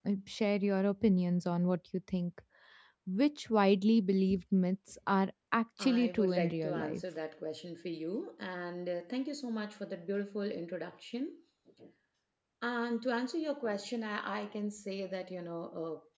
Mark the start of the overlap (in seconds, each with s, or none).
5.8 s